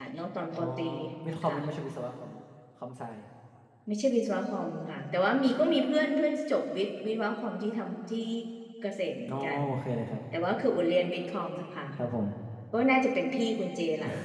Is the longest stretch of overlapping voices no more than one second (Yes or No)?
Yes